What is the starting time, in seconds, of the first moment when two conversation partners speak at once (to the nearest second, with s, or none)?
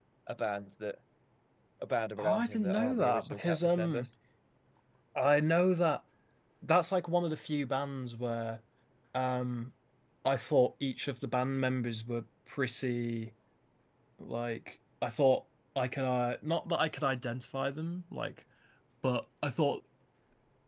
2 s